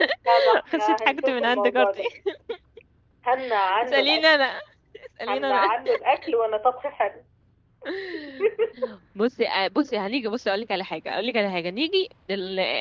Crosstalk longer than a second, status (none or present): present